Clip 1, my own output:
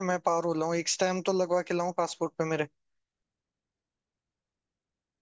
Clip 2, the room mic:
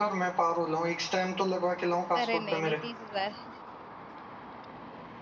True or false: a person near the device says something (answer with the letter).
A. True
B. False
A